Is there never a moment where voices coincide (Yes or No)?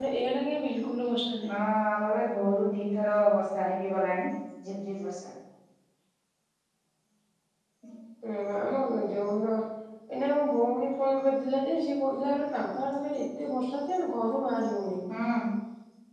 Yes